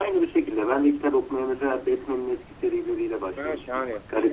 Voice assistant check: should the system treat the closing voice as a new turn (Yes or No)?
Yes